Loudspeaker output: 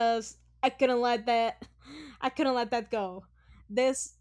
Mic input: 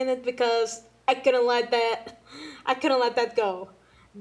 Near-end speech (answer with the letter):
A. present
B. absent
B